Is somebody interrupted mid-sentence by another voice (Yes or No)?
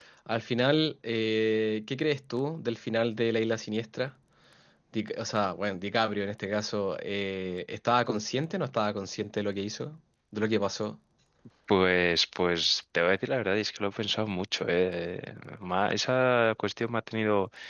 No